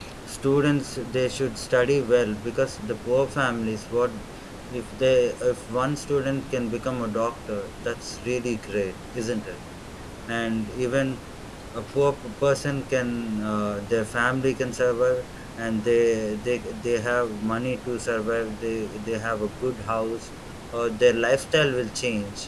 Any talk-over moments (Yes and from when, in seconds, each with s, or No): No